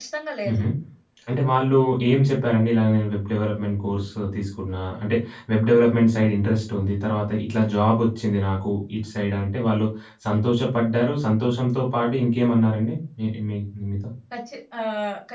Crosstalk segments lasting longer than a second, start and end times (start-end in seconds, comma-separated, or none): none